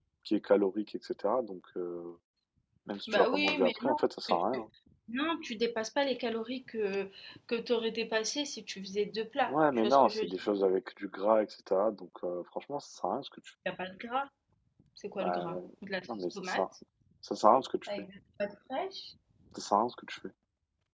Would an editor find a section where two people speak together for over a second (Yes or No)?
Yes